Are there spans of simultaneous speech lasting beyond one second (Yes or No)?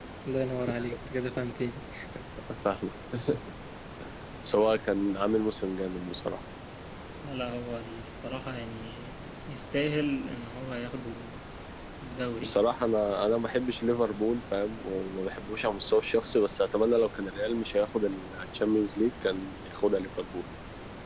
No